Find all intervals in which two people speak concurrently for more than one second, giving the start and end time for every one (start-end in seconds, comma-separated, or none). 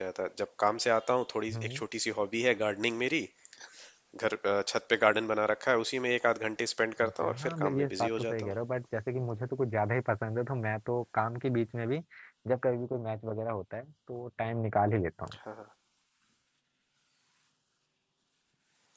7.0-8.5